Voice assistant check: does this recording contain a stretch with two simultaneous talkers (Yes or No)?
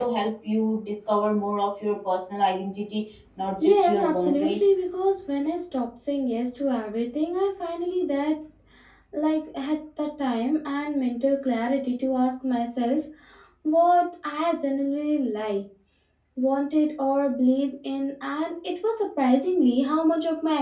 Yes